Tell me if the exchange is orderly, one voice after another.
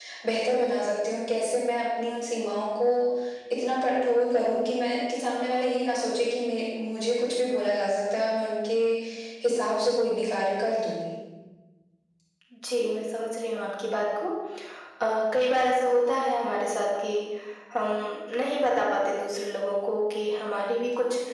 Yes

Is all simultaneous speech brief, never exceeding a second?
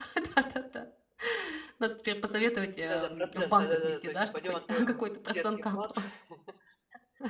No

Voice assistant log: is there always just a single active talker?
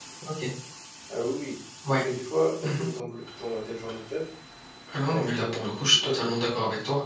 No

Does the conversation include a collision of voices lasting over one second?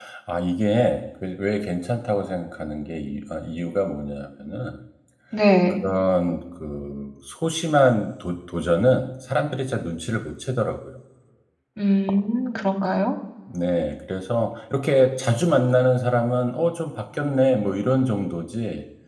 No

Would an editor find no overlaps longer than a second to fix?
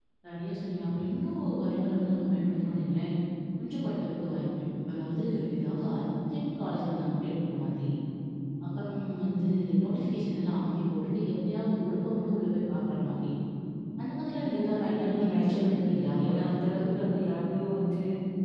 No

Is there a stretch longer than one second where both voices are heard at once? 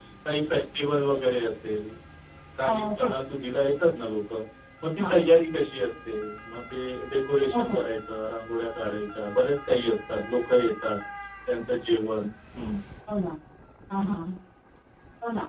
No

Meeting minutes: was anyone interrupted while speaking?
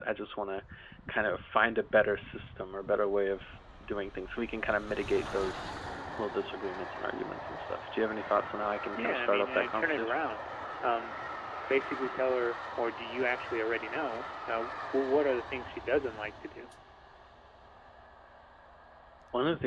Yes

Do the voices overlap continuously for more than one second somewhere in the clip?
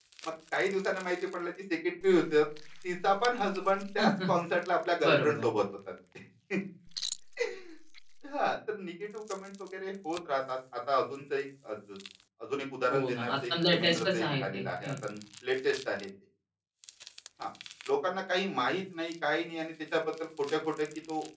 Yes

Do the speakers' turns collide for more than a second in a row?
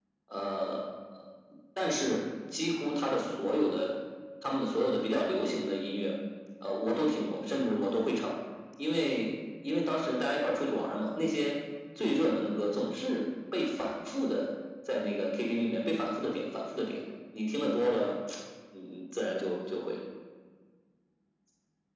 No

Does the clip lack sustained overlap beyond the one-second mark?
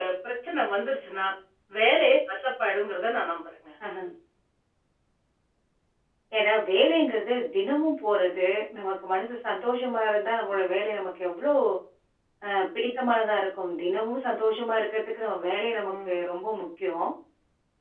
Yes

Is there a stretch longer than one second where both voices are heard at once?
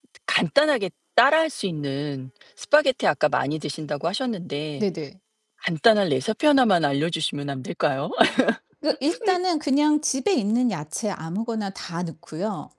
No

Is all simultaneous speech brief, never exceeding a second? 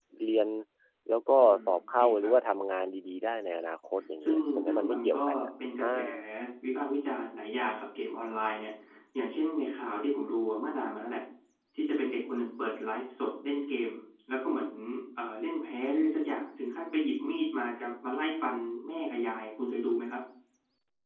No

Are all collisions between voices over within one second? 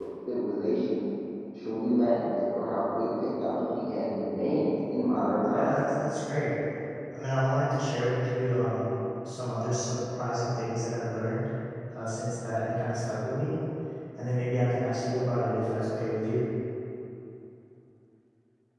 Yes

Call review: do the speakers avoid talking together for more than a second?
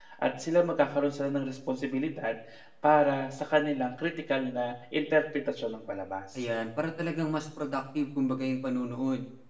Yes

